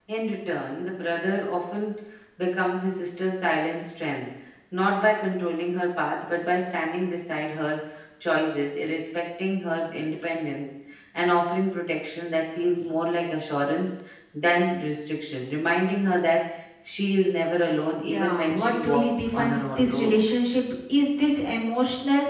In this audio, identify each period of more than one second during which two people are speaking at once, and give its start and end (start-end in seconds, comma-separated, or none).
18.0-20.1